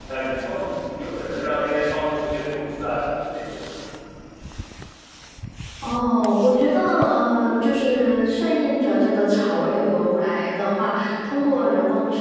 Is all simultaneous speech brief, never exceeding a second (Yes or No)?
Yes